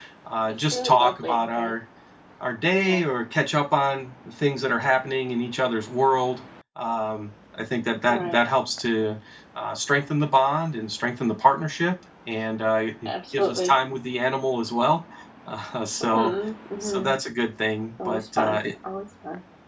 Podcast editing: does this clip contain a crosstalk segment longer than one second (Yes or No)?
Yes